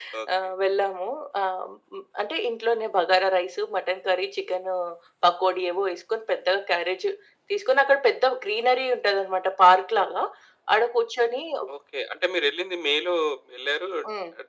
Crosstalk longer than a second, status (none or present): none